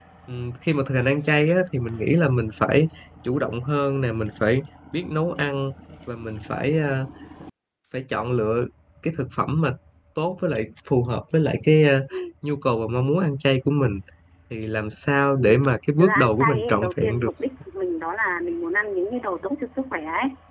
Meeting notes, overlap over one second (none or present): present